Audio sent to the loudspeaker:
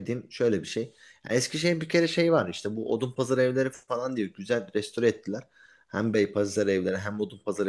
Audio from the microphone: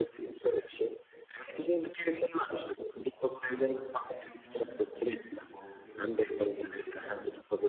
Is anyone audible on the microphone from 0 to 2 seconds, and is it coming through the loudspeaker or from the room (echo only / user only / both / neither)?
echo only